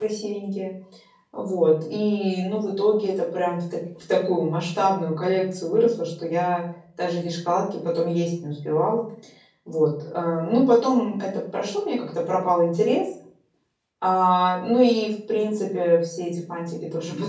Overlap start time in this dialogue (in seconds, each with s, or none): none